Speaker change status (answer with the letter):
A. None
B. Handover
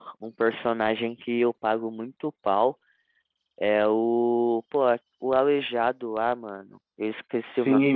B